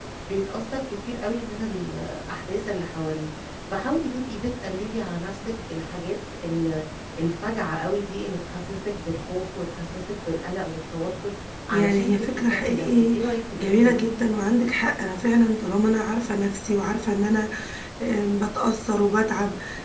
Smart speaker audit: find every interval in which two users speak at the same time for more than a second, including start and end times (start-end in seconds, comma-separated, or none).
11.7-13.2